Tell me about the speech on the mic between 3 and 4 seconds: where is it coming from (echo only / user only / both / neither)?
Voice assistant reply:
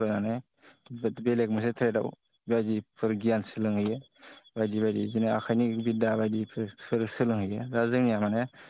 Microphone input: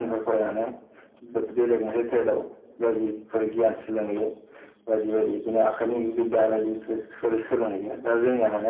echo only